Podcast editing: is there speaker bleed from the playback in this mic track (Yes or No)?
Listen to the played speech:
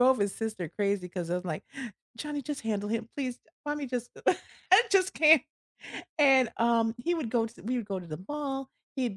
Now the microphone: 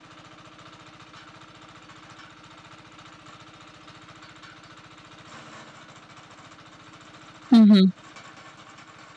No